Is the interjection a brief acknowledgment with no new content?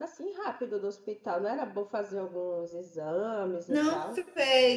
No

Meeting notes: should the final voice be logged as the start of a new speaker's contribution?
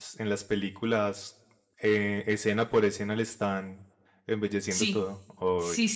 Yes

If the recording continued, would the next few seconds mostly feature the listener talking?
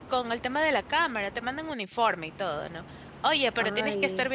No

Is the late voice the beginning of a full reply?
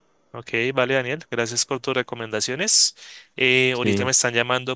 No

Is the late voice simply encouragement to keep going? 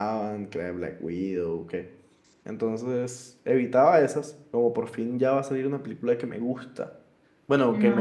Yes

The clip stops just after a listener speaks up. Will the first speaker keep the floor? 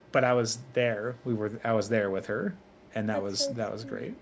No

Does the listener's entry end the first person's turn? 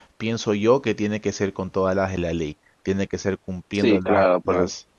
Yes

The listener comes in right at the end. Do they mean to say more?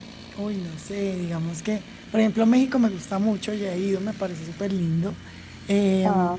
No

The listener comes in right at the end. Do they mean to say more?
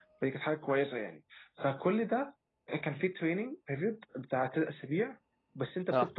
No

